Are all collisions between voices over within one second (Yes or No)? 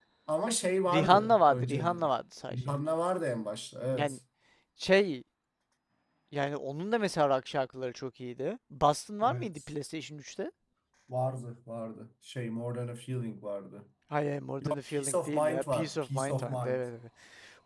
No